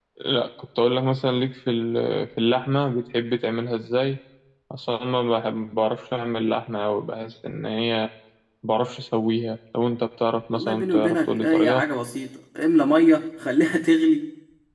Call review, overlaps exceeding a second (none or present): present